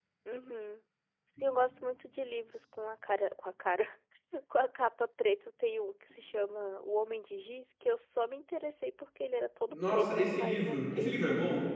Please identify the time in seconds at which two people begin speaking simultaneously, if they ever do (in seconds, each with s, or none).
9.7 s